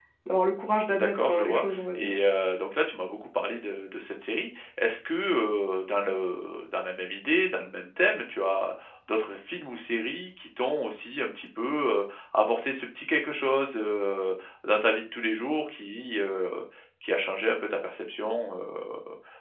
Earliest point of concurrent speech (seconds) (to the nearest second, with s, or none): 1 s